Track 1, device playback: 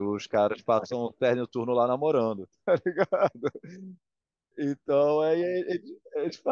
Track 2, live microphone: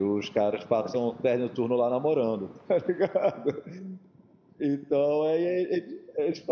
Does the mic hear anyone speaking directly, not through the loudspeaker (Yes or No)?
No